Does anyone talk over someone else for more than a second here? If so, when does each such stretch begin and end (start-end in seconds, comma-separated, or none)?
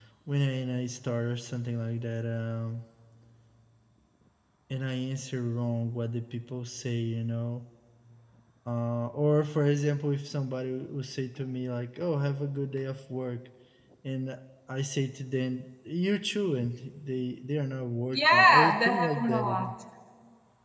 18.1-19.7